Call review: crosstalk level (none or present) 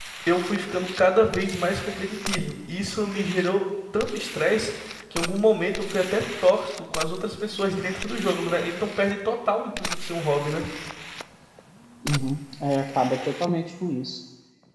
none